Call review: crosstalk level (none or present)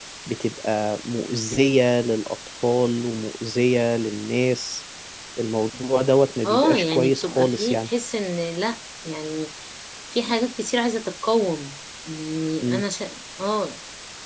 present